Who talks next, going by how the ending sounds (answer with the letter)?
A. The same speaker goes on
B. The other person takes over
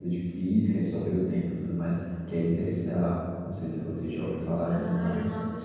B